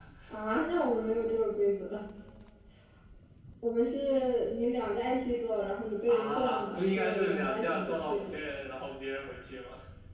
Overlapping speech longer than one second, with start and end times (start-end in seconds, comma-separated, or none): 6.1-8.3